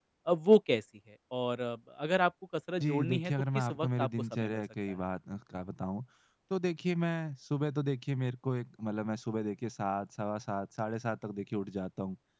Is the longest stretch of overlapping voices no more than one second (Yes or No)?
No